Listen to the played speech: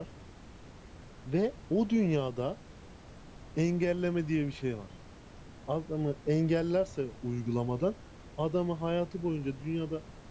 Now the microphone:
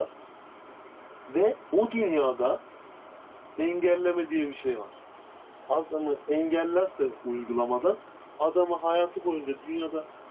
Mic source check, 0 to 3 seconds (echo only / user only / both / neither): echo only